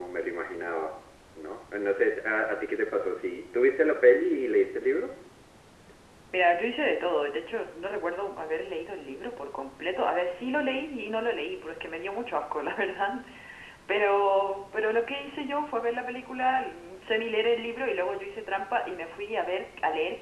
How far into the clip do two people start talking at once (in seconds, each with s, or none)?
none